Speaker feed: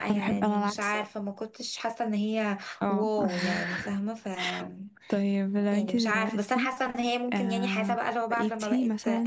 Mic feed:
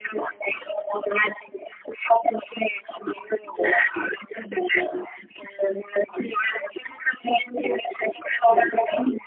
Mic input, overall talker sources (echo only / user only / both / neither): echo only